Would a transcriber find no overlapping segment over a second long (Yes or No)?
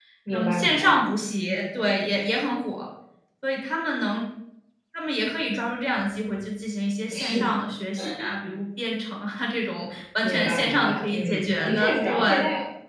No